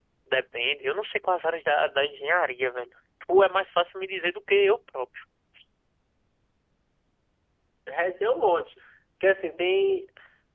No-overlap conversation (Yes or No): Yes